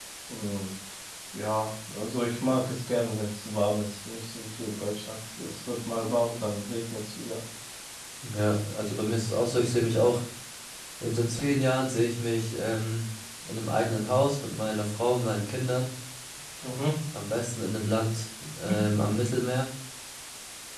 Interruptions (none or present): none